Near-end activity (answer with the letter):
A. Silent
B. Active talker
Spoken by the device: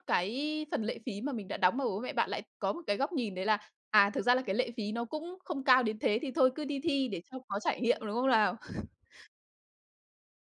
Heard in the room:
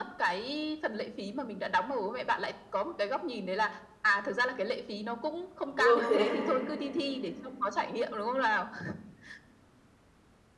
B